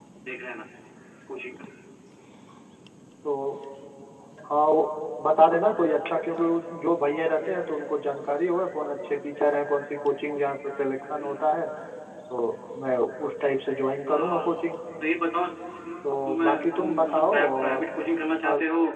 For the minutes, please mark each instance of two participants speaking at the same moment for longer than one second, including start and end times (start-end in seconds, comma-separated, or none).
16.3-17.8